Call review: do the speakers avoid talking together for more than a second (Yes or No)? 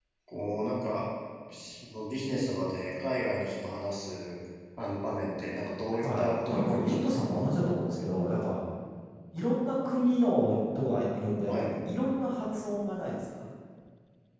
No